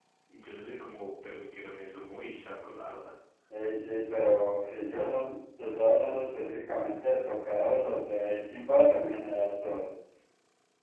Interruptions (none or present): none